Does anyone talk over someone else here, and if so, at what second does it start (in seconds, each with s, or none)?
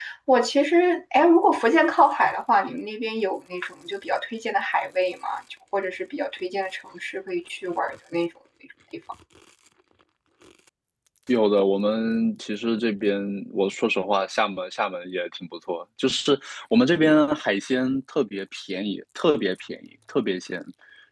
none